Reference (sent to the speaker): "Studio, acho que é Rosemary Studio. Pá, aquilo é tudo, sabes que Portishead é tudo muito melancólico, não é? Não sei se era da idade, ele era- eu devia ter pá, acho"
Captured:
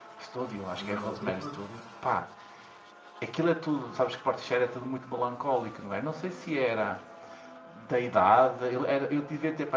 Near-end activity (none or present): present